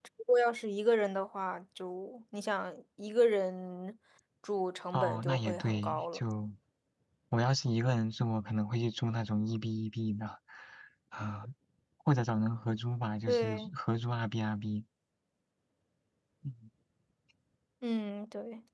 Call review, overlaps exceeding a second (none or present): present